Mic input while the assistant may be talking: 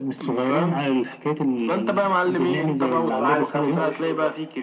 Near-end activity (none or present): present